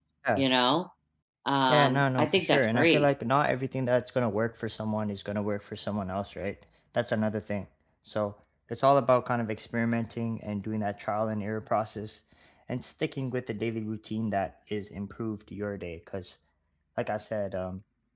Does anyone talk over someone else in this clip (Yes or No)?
Yes